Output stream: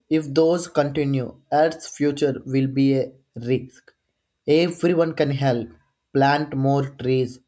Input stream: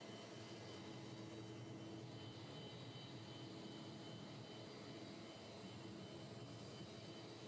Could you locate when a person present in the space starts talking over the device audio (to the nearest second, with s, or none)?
none